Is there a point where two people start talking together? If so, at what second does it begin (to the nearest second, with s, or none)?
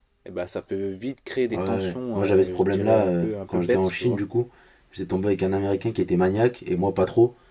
2 s